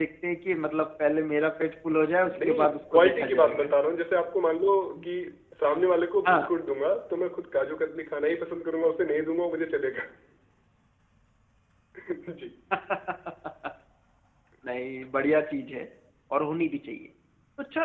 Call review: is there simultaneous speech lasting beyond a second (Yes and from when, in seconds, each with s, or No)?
Yes, from 2.3 s